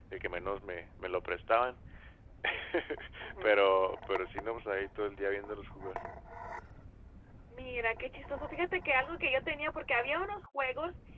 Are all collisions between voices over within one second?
Yes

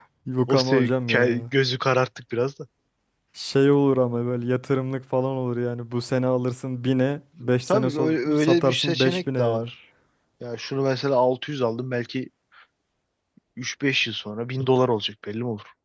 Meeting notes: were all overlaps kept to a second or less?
No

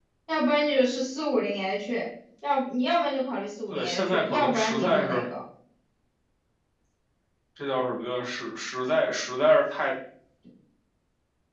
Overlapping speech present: Yes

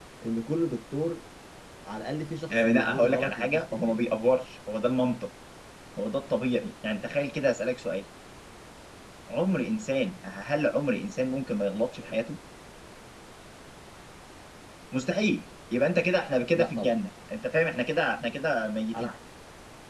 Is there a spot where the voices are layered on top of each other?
Yes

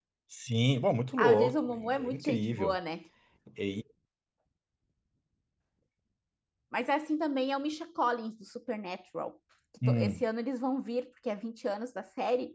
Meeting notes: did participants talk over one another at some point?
Yes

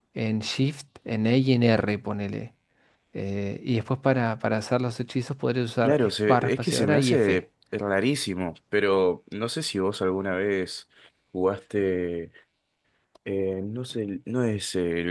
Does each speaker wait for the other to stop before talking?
No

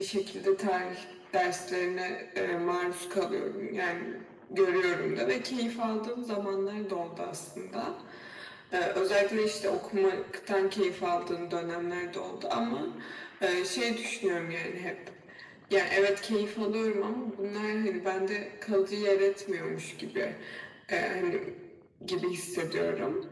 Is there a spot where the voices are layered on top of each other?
No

